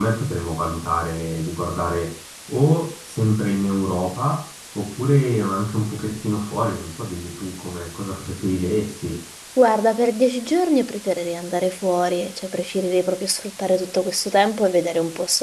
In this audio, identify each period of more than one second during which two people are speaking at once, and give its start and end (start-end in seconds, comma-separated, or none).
none